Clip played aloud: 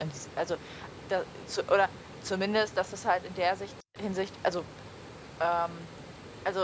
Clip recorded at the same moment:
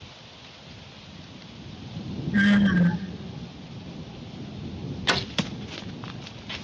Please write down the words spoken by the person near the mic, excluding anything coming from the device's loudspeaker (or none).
Ah.